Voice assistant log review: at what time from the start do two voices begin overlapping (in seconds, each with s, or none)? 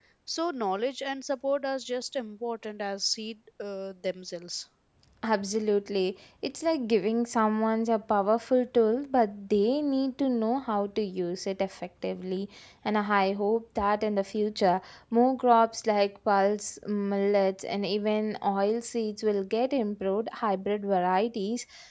none